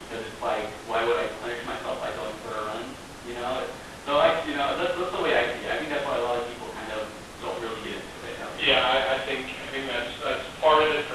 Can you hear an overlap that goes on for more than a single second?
No

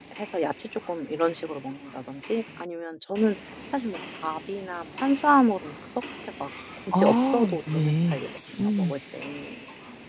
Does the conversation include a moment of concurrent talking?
Yes, from 6.9 s

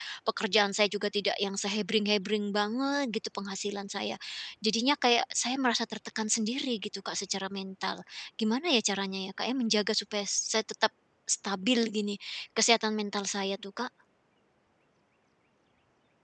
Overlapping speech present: No

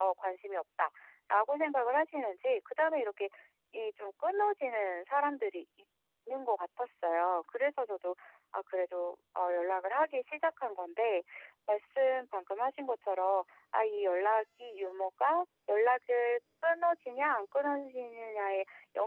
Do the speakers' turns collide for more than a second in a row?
No

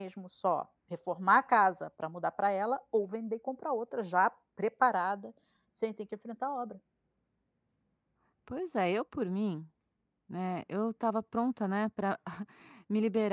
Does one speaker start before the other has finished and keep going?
No

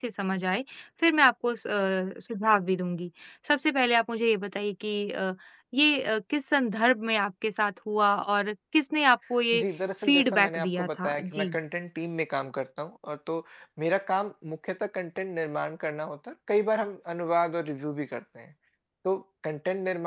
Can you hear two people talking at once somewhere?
Yes, from 10.0 s

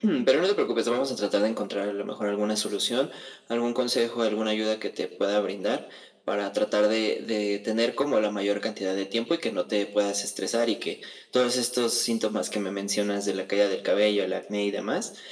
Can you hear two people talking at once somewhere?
No

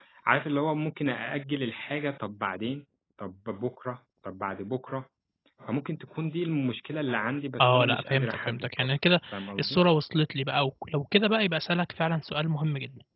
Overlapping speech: Yes, from 7.6 s

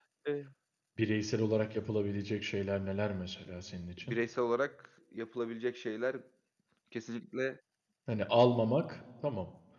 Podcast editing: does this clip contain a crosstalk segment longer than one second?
No

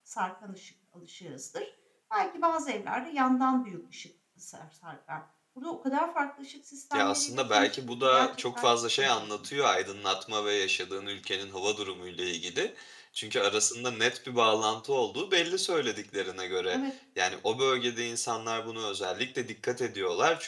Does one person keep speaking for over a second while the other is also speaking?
Yes, from 6.9 s

